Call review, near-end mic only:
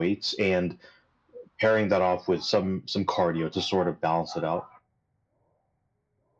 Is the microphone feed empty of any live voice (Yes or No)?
Yes